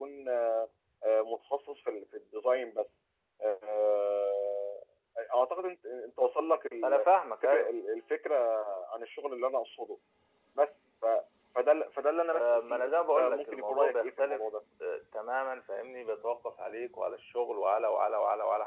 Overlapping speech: Yes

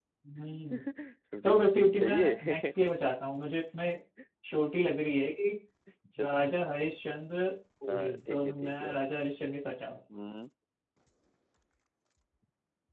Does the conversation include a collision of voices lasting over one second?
Yes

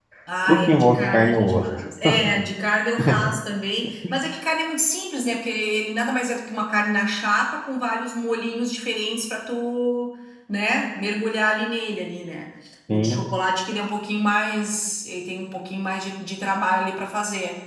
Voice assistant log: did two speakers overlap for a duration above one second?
Yes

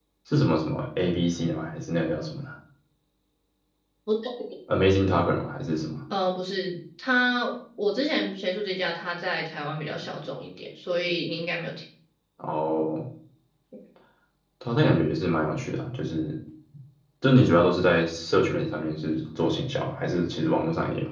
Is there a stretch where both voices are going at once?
No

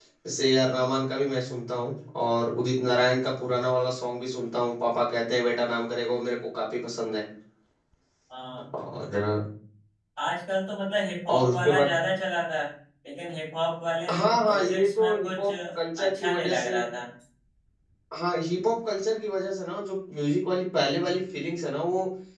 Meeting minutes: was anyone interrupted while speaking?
Yes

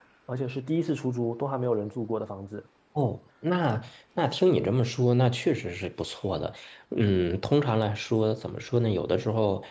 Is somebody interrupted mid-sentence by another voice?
No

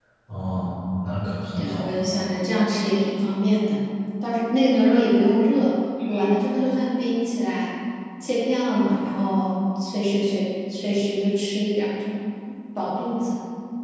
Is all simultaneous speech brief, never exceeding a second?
Yes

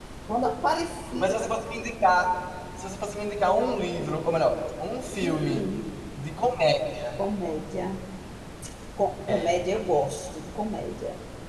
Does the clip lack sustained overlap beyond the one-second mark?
Yes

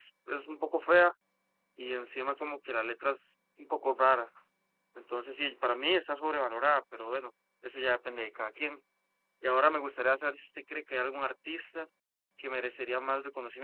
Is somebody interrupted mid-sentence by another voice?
No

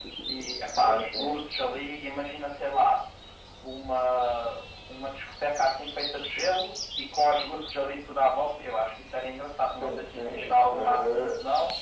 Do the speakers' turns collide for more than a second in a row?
Yes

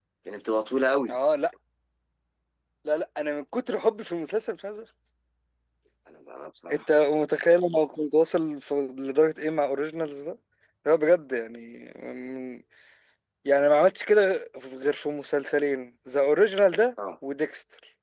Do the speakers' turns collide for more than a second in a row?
No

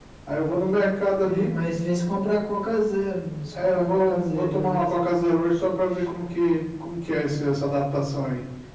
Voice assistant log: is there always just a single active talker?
No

